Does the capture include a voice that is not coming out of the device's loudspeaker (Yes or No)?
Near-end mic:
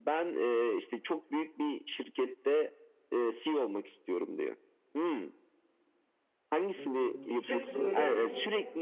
Yes